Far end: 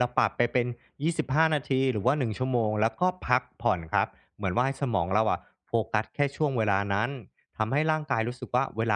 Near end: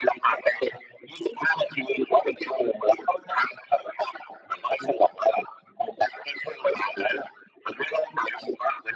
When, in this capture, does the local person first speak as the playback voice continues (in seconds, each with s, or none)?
none